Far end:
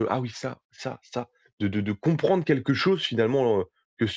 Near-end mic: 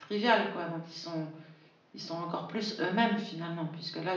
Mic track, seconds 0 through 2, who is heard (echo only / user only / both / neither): user only